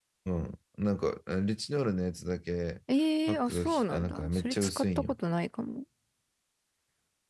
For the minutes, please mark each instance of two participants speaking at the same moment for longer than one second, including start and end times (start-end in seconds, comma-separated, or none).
3.3-5.1